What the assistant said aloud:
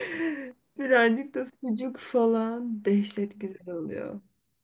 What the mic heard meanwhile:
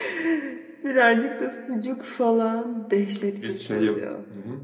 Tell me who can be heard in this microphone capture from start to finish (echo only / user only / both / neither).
both